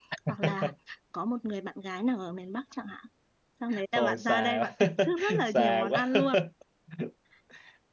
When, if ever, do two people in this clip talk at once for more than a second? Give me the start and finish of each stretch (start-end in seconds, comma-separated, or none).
3.9-6.1